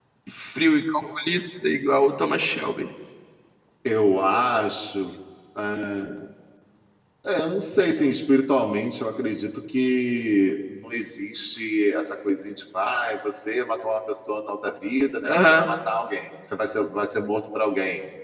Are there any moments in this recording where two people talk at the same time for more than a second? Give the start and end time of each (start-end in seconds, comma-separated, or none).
none